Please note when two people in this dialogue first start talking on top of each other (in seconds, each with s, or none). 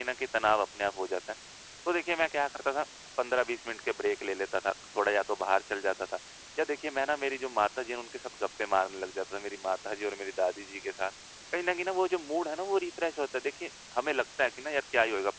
none